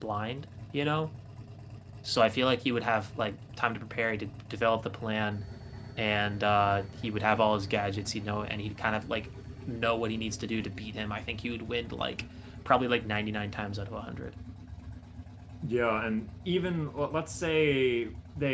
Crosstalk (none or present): none